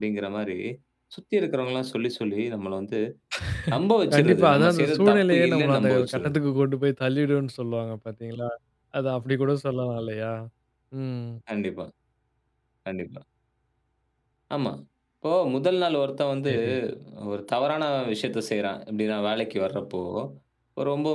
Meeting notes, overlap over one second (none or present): present